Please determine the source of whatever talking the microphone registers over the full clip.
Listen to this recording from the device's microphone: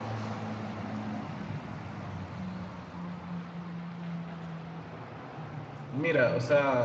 user only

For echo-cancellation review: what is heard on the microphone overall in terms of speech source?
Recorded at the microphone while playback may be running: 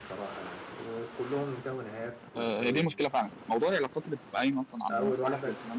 both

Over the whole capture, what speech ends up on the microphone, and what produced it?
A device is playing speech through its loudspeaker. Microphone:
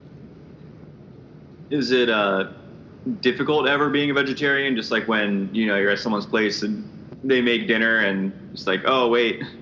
echo only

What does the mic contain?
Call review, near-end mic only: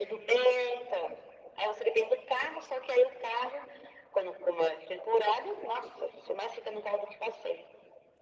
echo only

